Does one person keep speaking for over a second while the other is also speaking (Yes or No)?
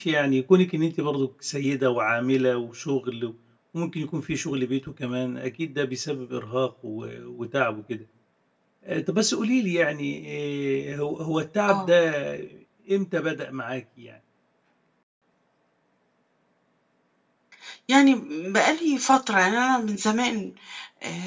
No